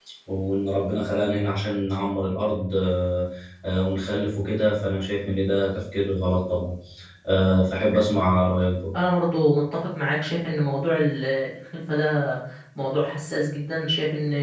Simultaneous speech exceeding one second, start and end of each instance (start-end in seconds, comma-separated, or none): none